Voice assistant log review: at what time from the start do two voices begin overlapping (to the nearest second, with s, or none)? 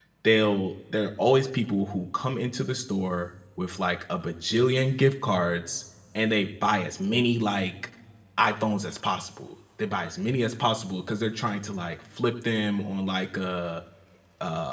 none